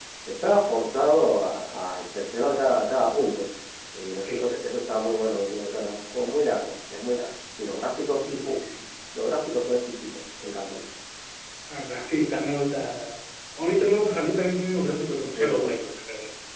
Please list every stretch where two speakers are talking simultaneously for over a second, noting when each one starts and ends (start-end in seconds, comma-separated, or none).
none